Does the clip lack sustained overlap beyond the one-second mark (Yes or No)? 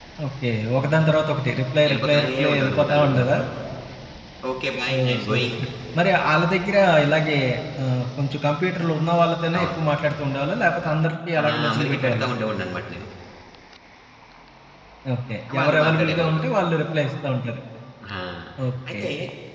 No